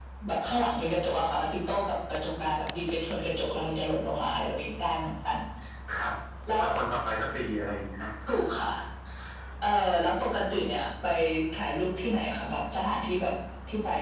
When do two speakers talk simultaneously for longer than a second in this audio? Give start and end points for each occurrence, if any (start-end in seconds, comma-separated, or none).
none